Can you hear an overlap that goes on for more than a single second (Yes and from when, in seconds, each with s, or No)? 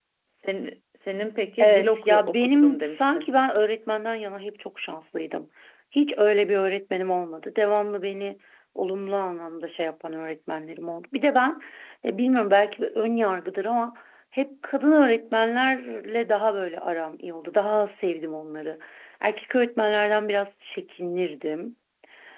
Yes, from 1.6 s